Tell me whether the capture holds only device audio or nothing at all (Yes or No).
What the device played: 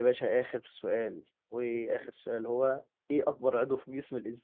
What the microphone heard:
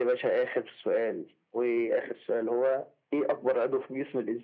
Yes